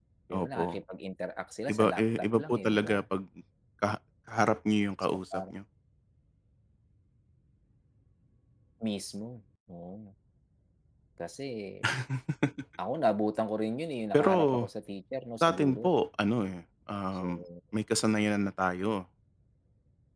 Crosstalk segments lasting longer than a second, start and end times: 1.7-3.0

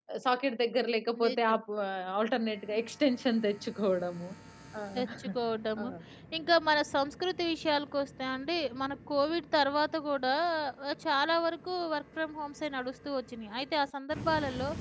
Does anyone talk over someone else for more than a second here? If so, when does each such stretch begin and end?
none

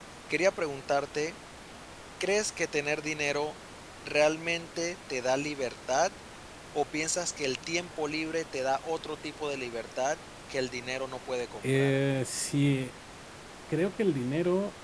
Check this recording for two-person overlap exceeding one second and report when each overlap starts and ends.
none

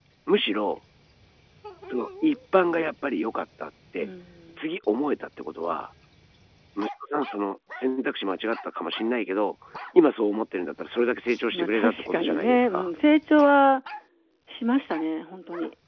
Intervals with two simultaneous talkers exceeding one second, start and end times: 11.5-12.9

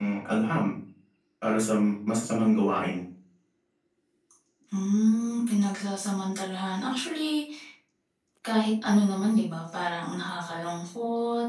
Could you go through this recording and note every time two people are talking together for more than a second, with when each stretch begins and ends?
none

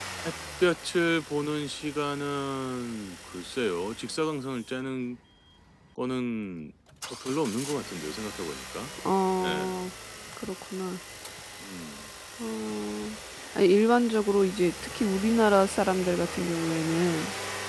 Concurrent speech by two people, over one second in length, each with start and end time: none

